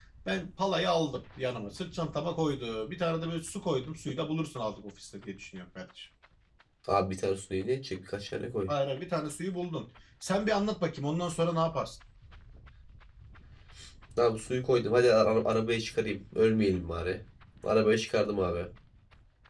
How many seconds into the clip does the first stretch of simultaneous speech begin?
none

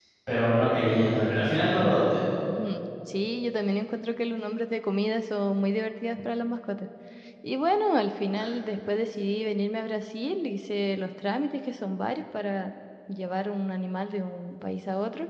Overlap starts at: none

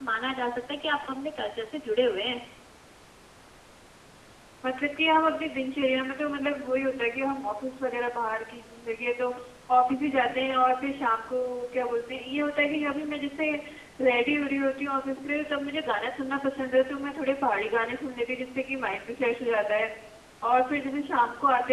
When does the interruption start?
none

